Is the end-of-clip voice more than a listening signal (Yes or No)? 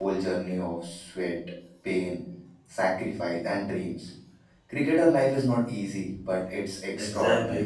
Yes